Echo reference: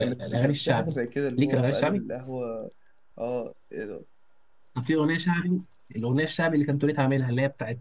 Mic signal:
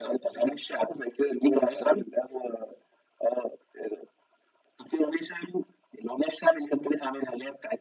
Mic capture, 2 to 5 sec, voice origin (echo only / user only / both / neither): echo only